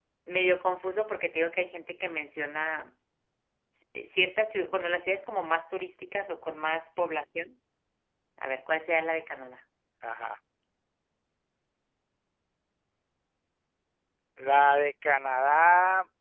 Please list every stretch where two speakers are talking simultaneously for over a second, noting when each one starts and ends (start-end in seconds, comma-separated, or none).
none